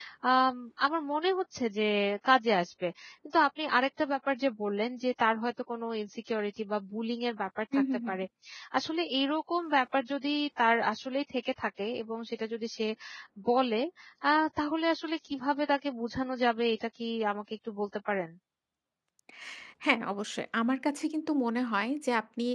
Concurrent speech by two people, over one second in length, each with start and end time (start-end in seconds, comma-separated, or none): none